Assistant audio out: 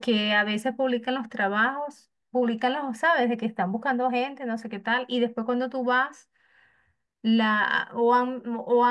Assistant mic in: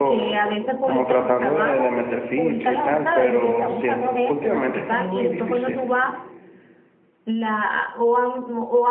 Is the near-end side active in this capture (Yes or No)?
Yes